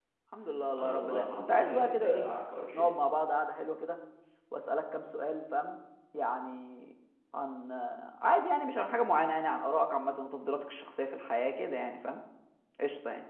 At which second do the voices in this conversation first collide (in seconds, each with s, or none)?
0.8 s